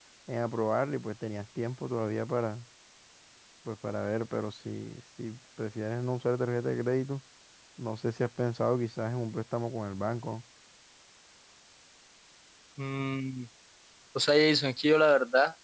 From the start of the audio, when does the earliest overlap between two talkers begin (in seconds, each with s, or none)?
none